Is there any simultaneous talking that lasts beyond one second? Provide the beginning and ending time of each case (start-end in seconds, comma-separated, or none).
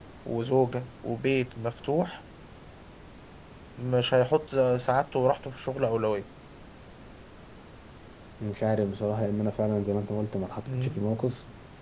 none